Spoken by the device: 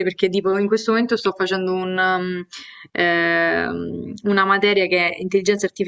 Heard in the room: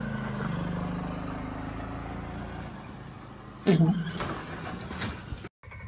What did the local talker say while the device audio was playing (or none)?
Mhm,